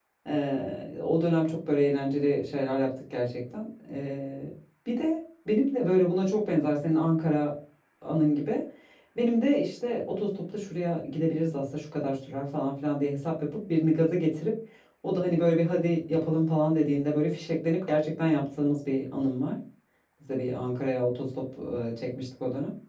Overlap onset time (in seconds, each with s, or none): none